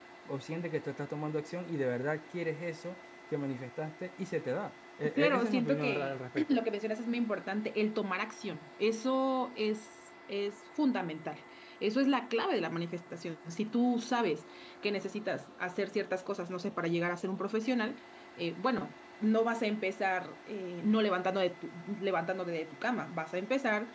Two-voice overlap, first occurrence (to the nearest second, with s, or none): 5 s